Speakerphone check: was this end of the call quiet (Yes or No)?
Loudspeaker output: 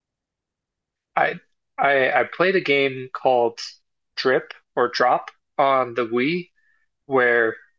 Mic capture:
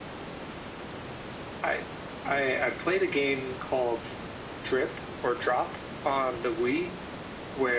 Yes